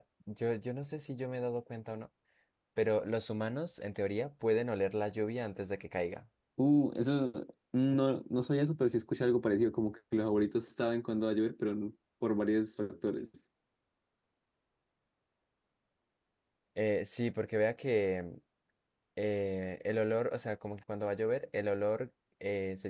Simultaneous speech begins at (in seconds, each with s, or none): none